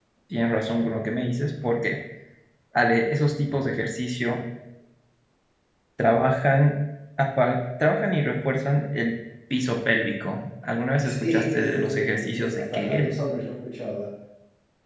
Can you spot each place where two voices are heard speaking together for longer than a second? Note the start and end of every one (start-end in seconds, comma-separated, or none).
11.0-13.2